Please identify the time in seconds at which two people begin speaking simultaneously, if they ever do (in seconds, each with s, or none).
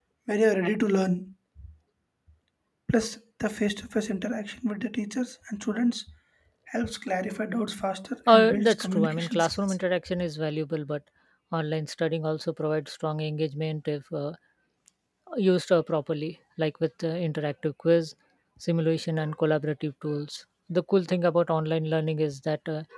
8.3 s